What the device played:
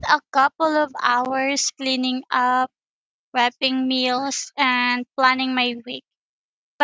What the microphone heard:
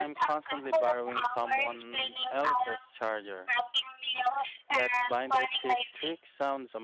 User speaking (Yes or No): Yes